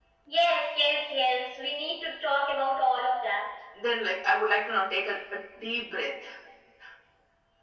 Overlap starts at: none

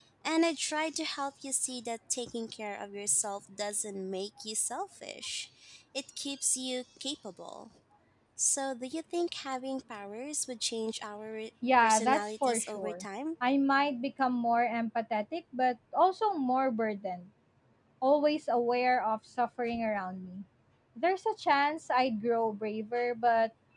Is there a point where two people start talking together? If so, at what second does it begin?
12 s

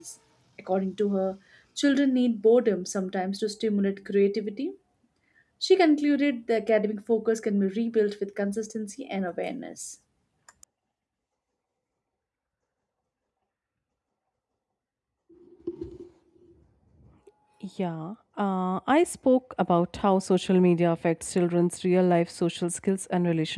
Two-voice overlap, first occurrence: none

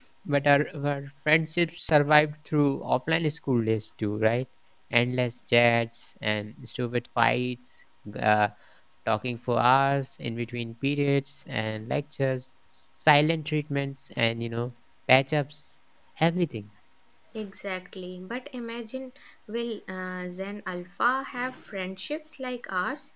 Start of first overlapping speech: none

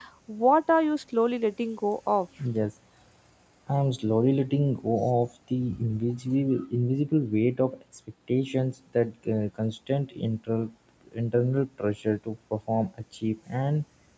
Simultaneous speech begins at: none

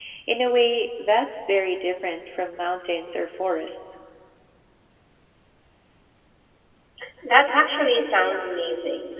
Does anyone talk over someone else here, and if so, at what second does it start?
none

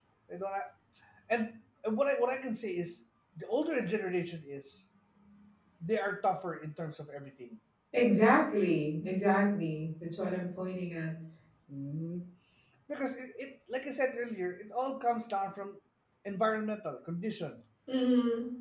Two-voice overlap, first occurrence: none

